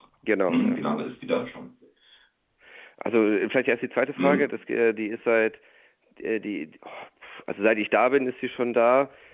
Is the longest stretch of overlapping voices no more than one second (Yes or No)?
Yes